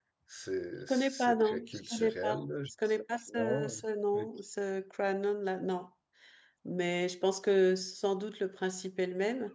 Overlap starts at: 0.9 s

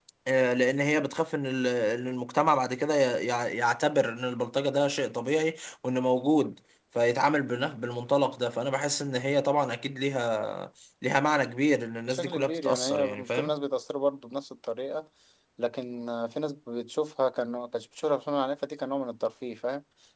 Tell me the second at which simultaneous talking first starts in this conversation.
12.1 s

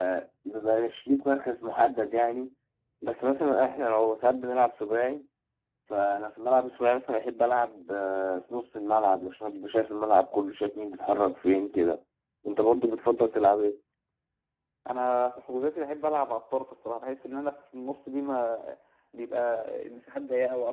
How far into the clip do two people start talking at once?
none

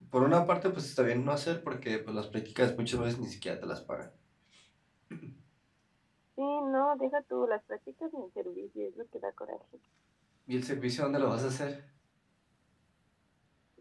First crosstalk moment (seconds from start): none

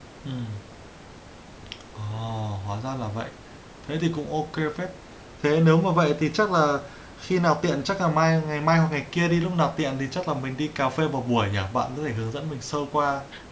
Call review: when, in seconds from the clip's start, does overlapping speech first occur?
none

